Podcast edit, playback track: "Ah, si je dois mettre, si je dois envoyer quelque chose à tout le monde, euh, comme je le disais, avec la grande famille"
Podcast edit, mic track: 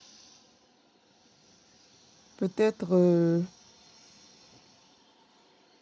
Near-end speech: present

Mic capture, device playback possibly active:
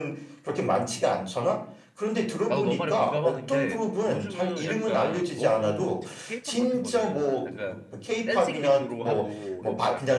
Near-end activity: present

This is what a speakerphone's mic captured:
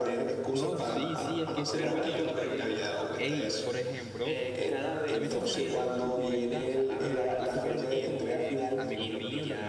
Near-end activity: present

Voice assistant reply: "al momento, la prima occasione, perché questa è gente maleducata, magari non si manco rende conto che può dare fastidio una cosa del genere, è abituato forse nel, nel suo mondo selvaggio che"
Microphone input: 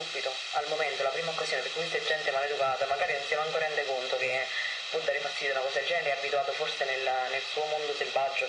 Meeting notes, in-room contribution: none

